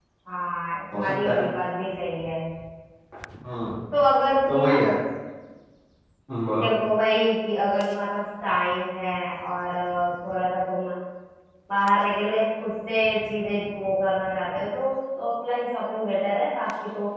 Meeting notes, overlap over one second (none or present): none